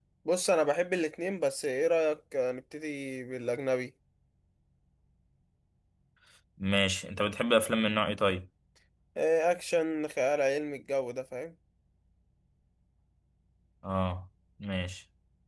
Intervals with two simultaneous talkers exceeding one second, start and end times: none

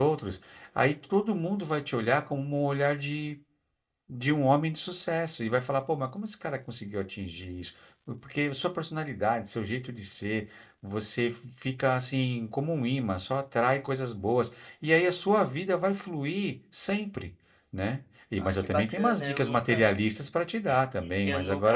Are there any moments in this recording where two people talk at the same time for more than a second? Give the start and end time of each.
18.4-19.8

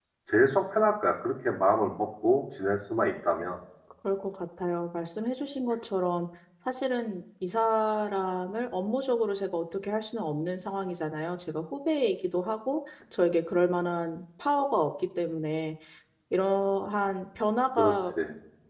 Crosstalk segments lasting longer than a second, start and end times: none

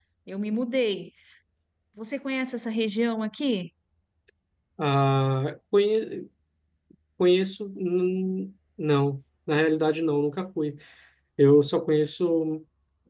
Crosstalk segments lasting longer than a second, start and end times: none

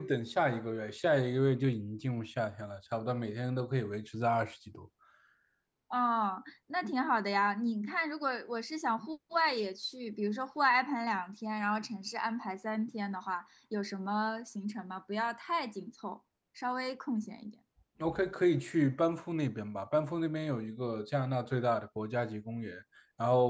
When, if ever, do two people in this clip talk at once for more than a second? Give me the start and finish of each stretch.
none

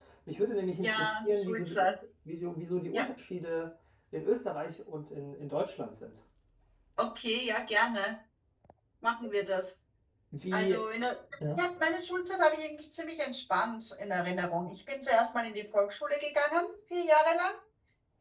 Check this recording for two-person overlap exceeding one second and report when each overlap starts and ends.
0.7-1.9

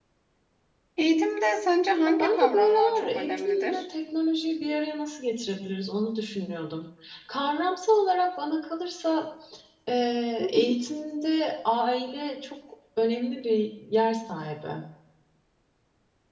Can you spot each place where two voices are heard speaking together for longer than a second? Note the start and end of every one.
2.0-3.9

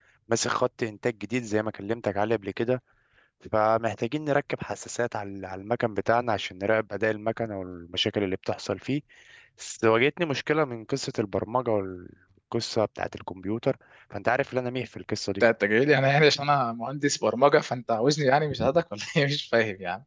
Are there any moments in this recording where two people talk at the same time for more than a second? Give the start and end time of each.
none

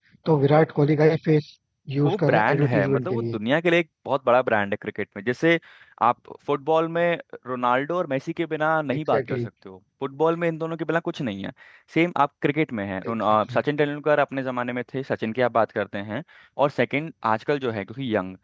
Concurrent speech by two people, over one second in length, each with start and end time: 2.0-3.4

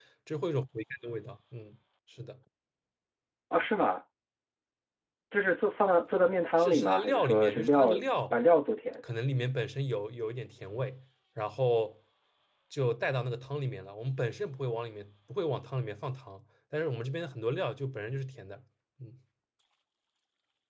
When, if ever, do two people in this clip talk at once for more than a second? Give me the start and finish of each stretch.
6.6-7.9

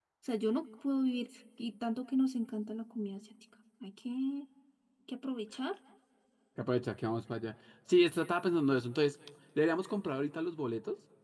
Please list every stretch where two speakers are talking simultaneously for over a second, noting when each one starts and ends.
none

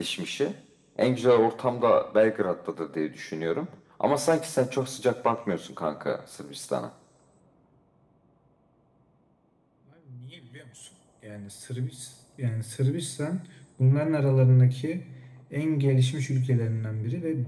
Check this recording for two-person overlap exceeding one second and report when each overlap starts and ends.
none

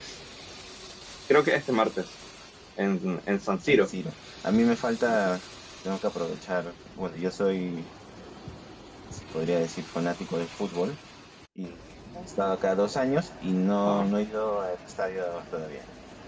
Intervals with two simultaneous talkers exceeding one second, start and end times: none

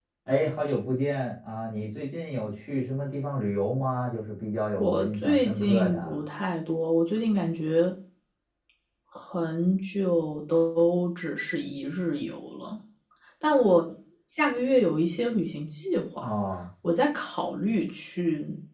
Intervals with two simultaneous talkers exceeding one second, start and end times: 4.8-6.2

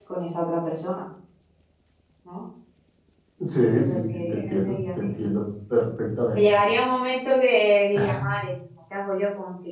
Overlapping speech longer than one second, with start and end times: 3.7-5.3

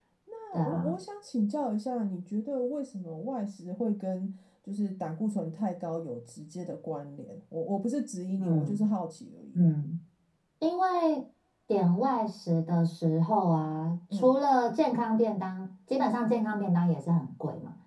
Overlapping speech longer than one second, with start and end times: none

